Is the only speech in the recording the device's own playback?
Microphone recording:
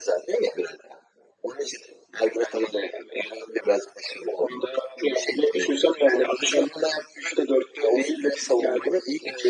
Yes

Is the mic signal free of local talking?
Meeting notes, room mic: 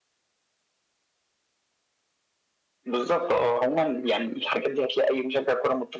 Yes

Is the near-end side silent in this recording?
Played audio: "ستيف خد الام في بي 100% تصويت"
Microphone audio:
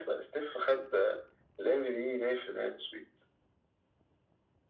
Yes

